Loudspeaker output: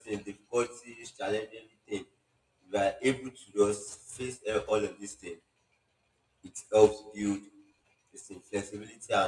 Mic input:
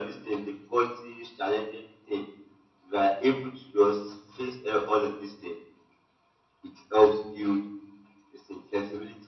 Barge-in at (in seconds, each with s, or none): none